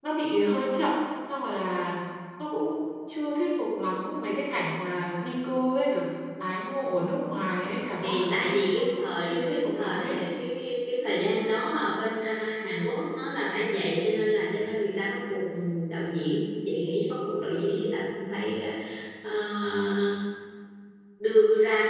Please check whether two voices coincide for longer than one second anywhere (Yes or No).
Yes